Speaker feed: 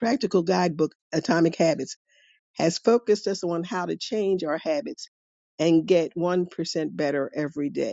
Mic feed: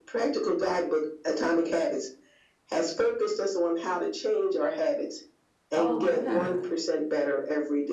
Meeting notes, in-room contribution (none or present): present